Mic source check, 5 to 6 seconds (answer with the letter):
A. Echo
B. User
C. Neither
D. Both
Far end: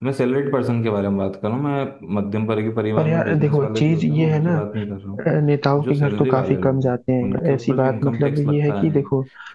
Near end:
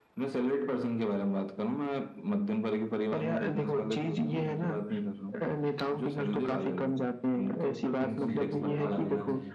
A